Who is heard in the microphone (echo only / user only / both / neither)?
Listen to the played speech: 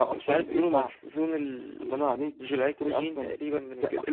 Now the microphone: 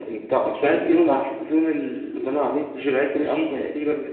echo only